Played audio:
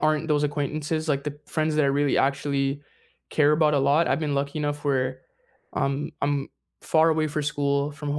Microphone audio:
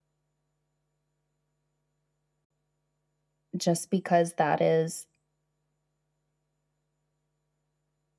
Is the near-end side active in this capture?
Yes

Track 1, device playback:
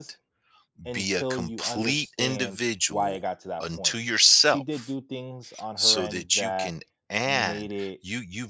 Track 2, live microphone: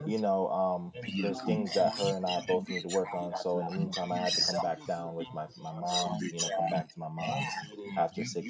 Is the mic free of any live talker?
No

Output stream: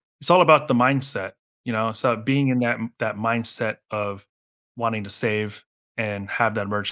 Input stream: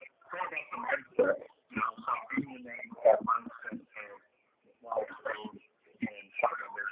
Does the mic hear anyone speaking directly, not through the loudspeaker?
No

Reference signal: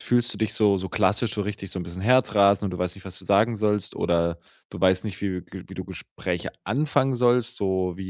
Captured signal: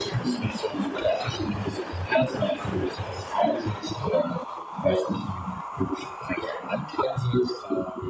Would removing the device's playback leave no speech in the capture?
Yes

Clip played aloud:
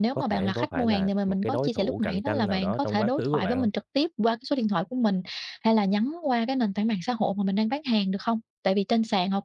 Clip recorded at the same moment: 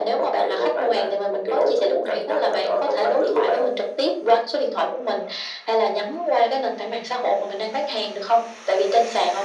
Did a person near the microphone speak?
No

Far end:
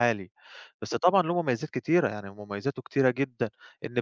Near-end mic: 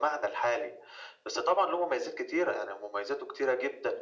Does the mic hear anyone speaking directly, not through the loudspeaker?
No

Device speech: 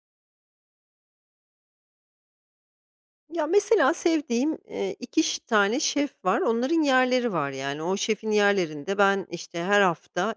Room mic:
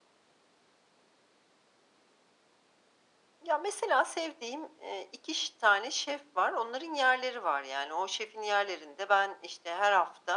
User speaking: No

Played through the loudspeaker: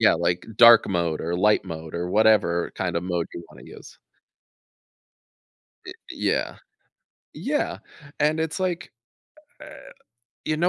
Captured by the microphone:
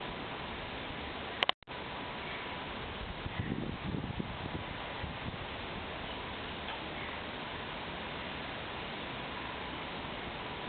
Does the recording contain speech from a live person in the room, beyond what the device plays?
No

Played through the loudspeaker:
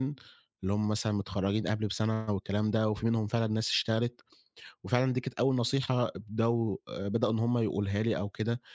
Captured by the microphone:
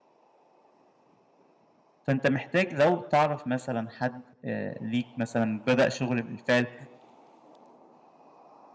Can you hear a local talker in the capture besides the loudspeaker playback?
Yes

